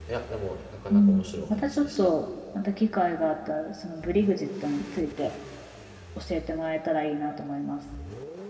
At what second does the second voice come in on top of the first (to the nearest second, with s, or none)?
1 s